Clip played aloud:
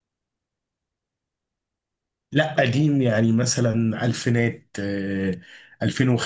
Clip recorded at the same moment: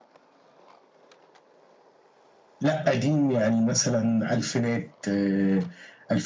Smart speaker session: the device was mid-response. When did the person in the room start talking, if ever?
none

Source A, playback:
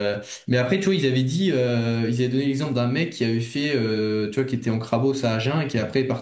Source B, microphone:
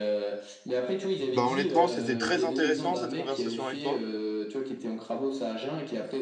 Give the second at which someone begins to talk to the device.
1.2 s

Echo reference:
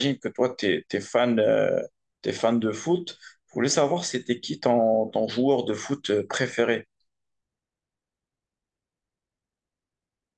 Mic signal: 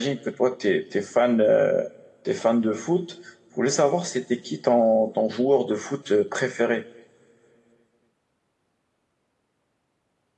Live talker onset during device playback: none

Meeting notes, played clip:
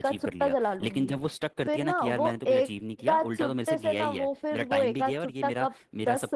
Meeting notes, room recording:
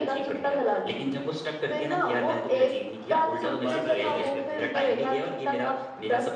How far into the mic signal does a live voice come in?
3.0 s

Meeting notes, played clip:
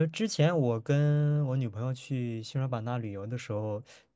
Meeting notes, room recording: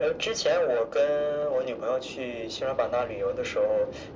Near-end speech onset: none

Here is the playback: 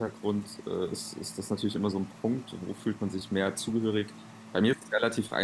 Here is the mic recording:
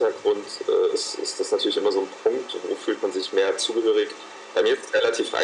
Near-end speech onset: none

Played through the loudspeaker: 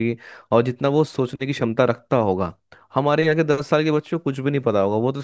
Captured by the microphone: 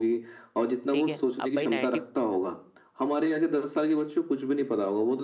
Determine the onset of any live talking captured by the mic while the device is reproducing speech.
0.9 s

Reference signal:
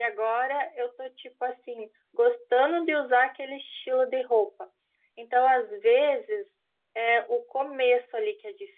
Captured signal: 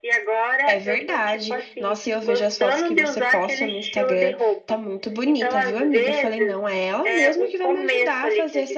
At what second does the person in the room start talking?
0.7 s

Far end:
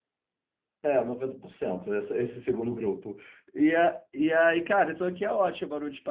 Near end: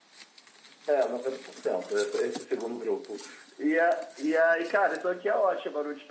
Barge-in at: none

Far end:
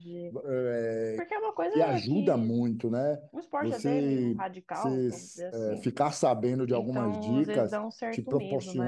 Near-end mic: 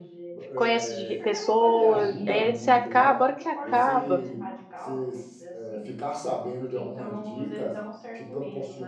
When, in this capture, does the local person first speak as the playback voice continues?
0.5 s

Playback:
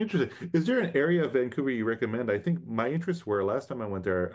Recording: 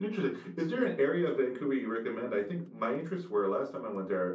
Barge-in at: none

